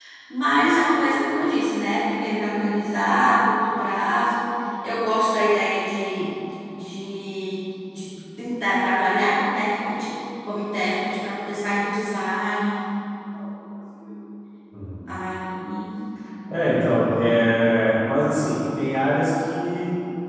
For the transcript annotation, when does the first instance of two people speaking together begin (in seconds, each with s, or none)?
none